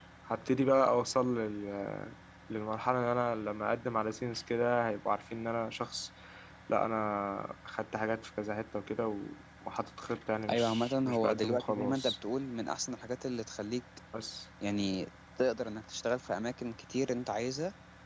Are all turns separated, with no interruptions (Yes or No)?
No